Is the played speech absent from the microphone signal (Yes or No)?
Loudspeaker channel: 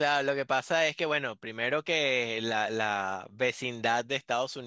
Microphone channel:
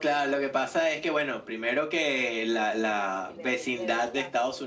No